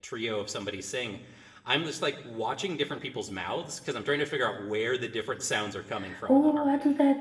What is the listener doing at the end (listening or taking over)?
taking over